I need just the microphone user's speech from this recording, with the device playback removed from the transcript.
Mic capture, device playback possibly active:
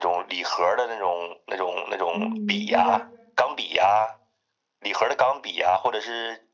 嗯，就是

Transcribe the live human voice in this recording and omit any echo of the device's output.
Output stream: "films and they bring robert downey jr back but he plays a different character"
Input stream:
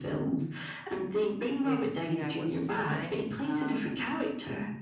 with, you know, what's just come out. Um,

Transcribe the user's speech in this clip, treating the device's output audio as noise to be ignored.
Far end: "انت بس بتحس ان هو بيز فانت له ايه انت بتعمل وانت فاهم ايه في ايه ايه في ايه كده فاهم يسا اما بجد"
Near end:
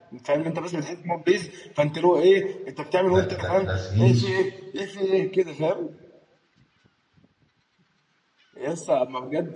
لا لا لذيذ

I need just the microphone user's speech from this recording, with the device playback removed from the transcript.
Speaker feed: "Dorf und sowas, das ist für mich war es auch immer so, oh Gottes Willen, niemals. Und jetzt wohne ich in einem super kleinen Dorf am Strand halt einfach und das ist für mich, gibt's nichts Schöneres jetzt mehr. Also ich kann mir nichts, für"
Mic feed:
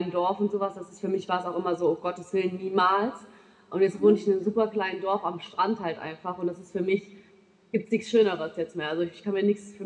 Mhm.

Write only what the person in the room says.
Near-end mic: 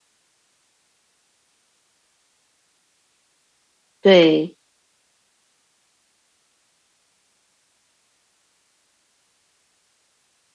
对，

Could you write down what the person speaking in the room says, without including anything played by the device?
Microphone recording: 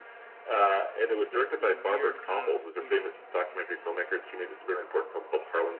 just this, this weird kind of, you know,

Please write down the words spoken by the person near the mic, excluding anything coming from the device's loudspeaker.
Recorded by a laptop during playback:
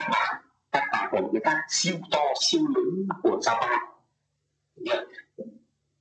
none

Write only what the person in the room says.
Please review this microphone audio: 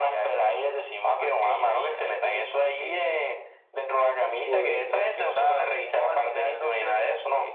podemos

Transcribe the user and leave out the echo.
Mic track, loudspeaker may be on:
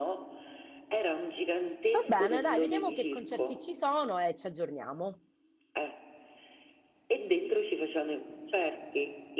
Va bene, dai, vediamo che concerti ci sono e ci aggiorniamo.

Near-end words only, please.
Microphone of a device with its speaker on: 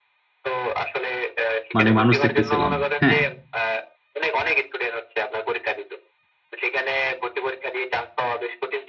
মানে মানুষ দেখতেছিলাম হ্যাঁ

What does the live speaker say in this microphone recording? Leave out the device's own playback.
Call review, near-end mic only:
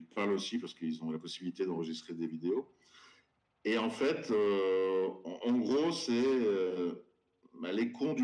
none

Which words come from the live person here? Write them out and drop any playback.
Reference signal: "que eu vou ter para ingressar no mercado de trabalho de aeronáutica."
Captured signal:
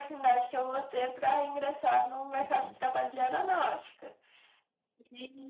Uhum.

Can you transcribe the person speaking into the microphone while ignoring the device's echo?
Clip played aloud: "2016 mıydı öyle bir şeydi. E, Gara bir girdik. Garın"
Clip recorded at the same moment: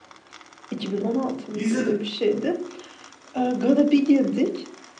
İzledim.

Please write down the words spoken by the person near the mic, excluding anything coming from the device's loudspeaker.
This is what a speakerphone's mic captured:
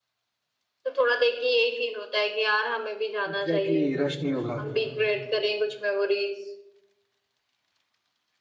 एग्जैक्टली exactly, रश नहीं होगा

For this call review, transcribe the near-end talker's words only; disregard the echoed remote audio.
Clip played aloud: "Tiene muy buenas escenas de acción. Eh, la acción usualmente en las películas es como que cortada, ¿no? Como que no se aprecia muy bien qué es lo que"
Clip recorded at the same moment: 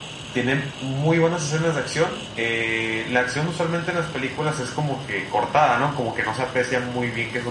none

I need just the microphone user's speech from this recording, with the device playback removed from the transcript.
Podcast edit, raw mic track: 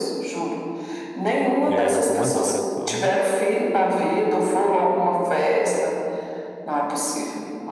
É, em algumas horas só, né?

